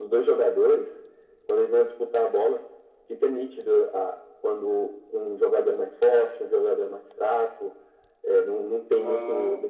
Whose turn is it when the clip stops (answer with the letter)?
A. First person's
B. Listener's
A